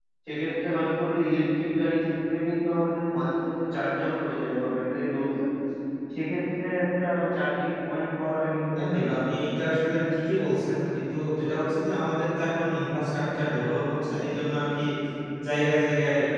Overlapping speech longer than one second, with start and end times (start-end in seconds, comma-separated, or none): none